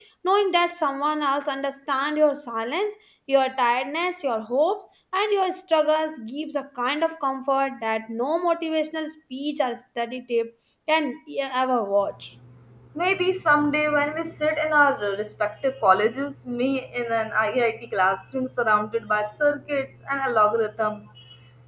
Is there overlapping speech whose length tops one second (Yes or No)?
No